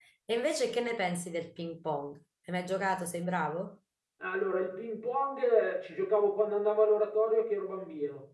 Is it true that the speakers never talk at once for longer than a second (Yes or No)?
Yes